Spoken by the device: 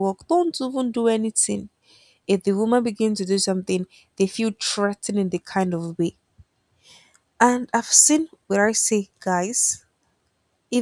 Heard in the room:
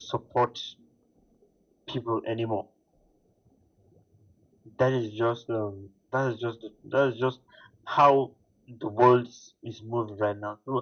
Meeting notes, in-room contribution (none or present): present